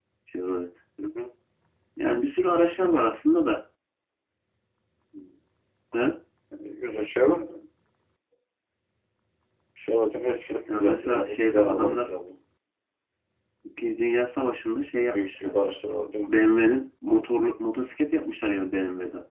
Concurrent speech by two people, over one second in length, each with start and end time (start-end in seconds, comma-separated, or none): 10.7-12.1